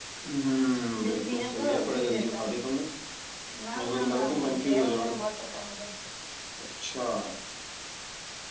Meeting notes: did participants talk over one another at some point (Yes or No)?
Yes